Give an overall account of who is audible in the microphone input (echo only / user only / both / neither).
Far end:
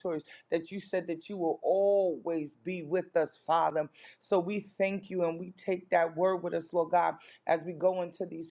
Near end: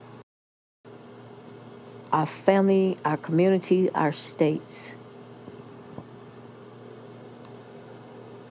user only